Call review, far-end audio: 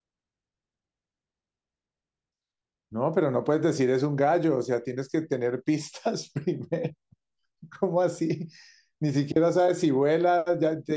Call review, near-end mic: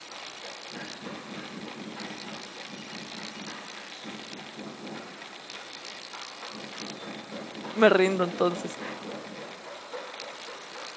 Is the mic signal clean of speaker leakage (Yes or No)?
Yes